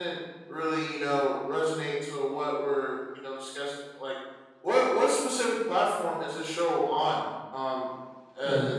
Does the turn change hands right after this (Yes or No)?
No